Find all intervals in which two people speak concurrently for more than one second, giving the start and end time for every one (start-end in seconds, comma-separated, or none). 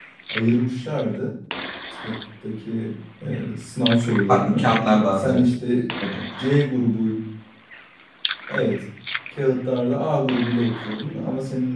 none